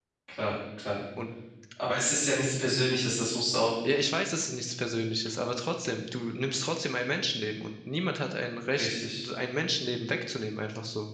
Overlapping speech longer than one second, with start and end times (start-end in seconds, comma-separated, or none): none